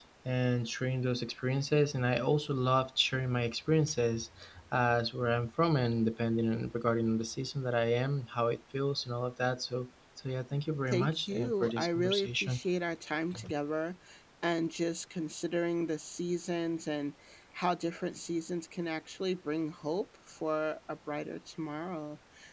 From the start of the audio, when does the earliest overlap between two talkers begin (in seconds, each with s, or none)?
10.9 s